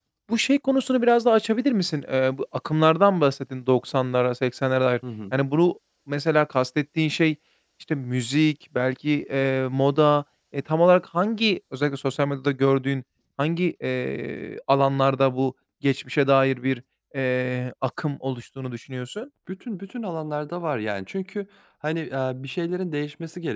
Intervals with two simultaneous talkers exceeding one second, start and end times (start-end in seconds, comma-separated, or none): none